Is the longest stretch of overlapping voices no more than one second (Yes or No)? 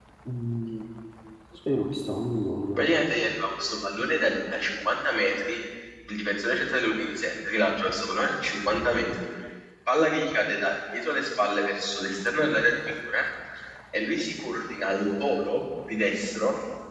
Yes